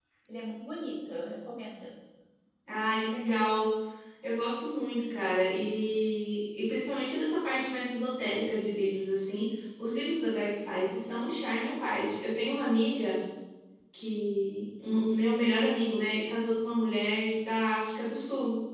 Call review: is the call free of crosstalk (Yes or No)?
Yes